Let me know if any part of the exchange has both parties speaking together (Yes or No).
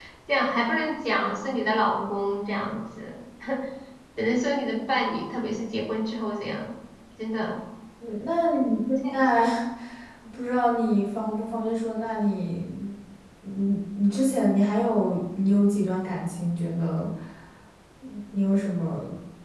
No